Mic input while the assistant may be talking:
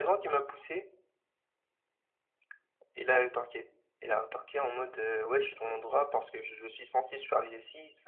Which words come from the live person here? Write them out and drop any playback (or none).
none